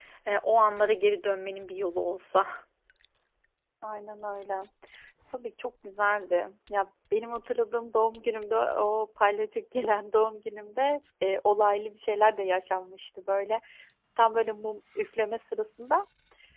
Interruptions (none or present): none